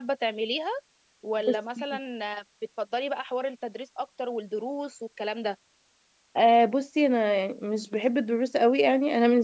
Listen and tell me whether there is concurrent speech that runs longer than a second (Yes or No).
No